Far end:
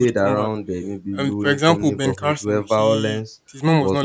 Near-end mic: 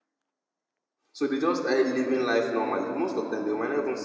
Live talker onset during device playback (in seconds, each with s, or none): 1.1 s